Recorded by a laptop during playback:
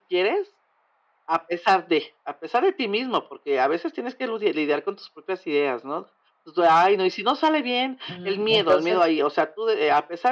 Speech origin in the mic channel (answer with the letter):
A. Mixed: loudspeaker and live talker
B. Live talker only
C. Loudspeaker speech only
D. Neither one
A